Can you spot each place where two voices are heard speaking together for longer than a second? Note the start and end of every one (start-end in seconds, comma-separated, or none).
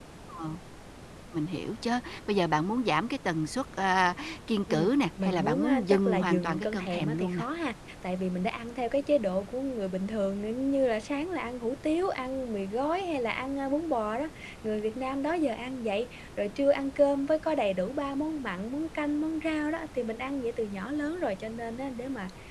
4.7-7.4